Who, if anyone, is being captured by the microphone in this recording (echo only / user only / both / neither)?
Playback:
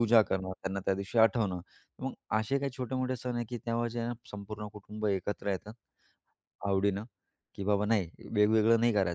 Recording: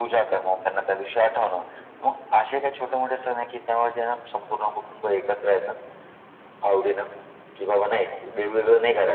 echo only